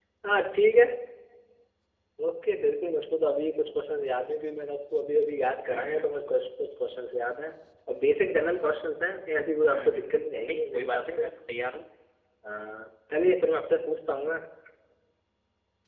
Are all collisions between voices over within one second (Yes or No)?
No